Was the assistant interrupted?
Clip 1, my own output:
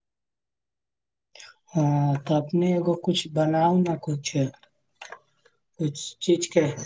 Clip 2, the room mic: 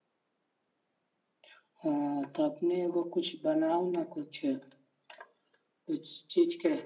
No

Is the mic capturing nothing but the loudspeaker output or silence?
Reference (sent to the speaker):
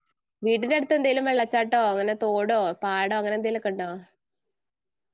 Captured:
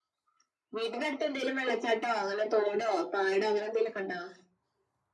Yes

